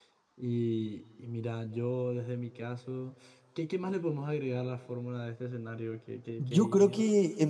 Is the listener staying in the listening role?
No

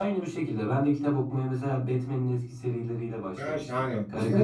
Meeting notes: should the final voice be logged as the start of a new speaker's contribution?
Yes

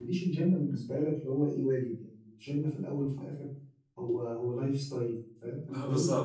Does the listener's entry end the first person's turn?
No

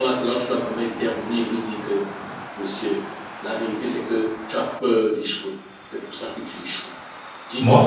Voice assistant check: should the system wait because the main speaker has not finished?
Yes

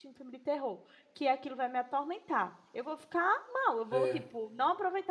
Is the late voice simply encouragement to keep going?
Yes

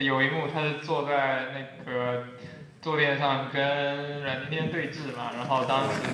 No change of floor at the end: Yes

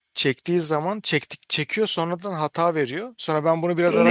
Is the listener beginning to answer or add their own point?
Yes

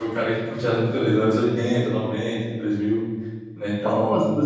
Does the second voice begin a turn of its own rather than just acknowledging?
Yes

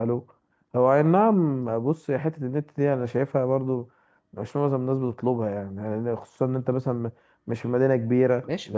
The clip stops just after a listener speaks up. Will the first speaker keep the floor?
No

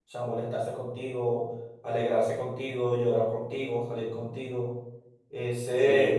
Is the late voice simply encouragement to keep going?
No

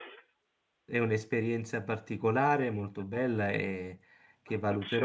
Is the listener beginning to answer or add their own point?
No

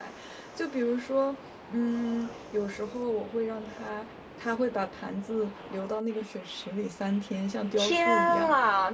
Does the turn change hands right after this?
Yes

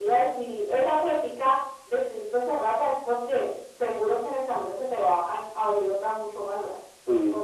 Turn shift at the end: Yes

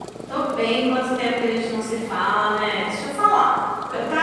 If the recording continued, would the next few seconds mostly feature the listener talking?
No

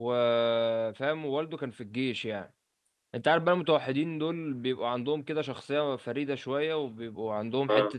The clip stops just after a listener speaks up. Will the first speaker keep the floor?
Yes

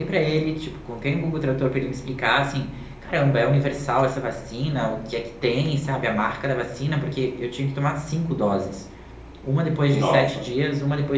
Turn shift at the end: No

